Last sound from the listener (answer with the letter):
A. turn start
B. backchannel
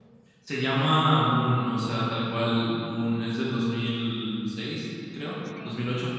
B